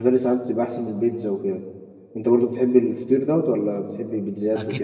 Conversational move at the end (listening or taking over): taking over